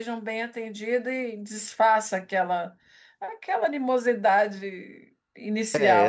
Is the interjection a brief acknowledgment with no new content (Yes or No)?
No